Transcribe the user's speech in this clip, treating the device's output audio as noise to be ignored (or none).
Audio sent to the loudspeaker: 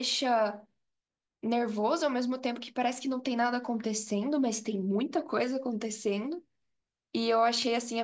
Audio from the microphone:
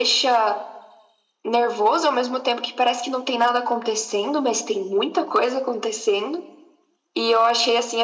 none